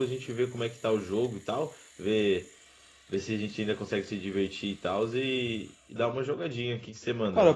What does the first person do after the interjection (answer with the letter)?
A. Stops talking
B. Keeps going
A